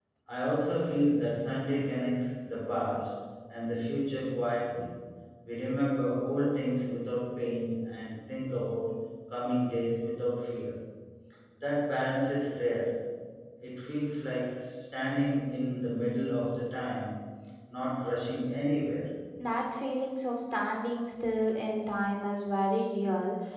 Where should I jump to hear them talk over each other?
none

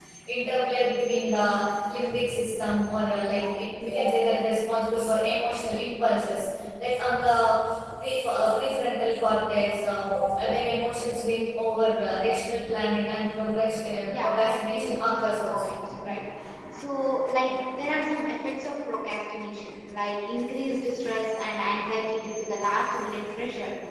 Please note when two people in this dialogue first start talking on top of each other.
14 s

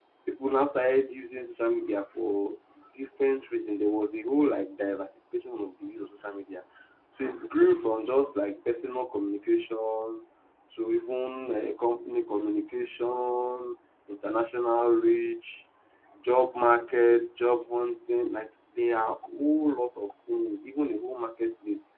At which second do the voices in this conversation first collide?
none

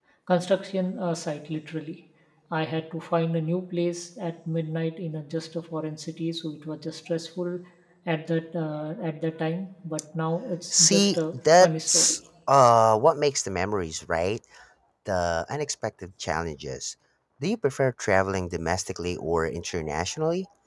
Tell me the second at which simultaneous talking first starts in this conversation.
11 s

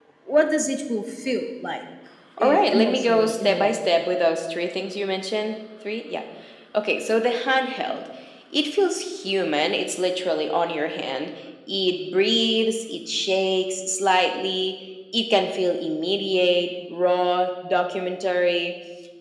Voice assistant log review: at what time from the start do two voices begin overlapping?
2 s

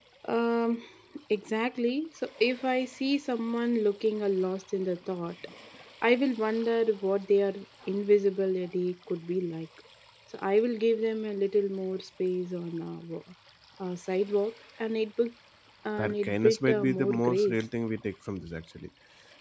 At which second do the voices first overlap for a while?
16 s

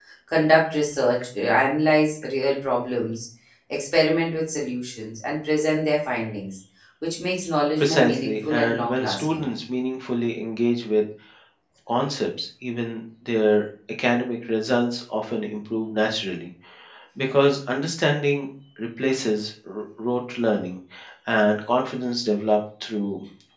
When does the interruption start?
8 s

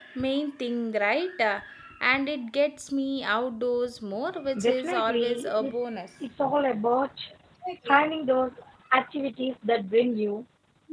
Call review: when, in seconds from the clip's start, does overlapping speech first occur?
5 s

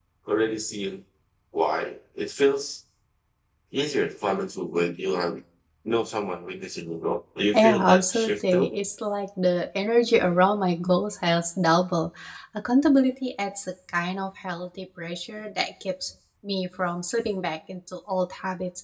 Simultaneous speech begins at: 8 s

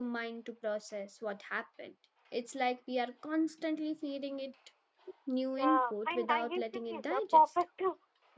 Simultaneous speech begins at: 6 s

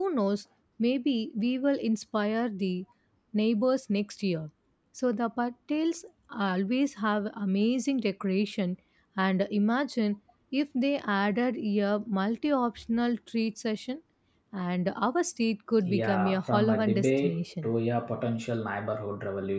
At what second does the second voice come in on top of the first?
16 s

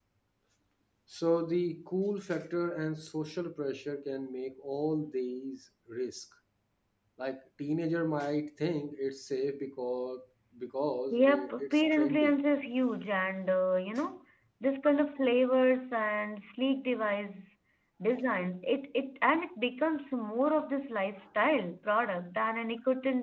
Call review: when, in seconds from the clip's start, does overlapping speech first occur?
11 s

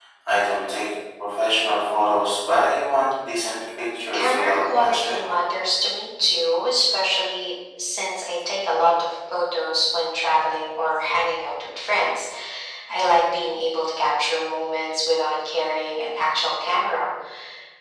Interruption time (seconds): 4 s

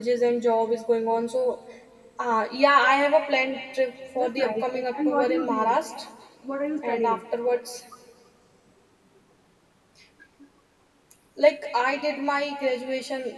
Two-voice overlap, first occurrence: 4 s

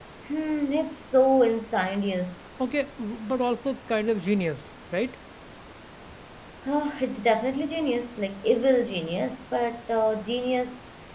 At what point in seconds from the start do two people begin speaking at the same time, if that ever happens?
none

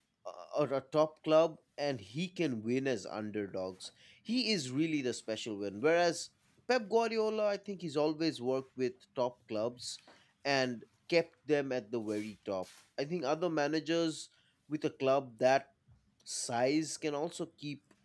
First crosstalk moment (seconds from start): none

